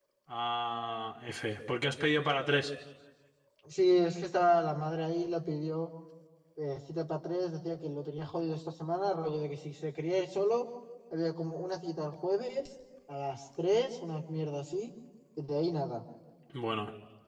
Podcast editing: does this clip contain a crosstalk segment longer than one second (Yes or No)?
No